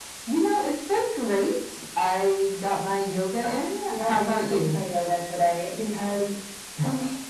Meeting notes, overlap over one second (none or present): present